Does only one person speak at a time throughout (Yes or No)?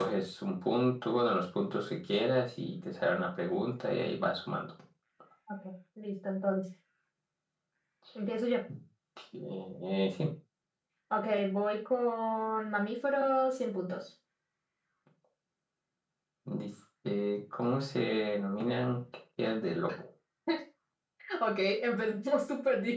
Yes